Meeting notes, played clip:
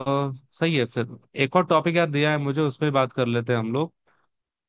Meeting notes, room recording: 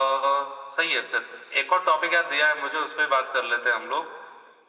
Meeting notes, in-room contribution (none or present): none